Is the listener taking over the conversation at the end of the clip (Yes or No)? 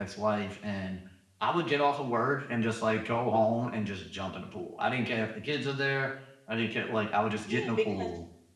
Yes